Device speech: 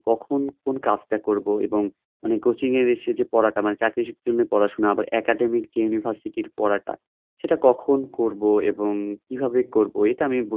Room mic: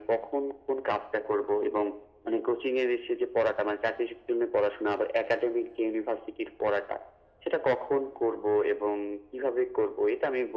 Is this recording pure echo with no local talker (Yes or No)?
Yes